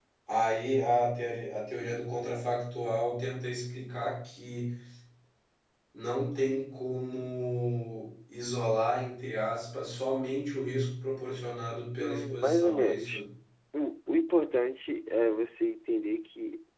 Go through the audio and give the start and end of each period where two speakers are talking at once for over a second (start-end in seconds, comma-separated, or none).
12.0-13.2